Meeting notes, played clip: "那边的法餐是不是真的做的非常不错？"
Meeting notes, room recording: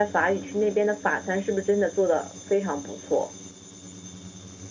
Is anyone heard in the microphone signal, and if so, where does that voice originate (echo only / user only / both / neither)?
echo only